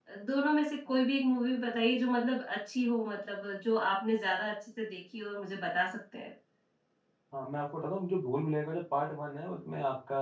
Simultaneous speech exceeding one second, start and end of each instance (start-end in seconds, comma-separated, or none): none